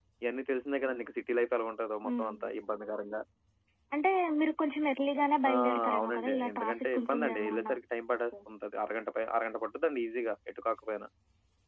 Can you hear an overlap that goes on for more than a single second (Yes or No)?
Yes